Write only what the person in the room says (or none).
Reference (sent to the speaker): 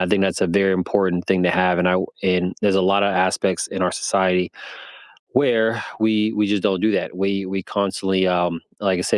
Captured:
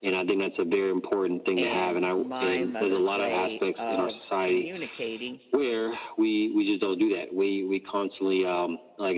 and my mother's way of communicating